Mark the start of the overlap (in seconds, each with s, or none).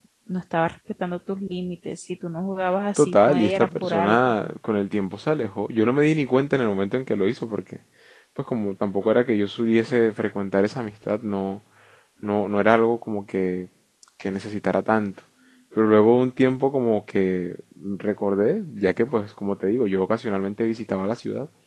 3.0 s